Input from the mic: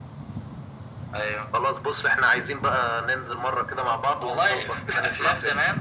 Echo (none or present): present